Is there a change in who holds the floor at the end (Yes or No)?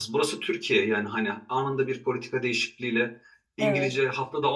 No